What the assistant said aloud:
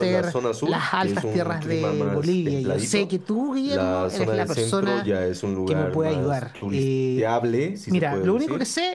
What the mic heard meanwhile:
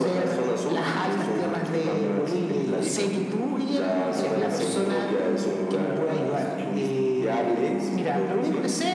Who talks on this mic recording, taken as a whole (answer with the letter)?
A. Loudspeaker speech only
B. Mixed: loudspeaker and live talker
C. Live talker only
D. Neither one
B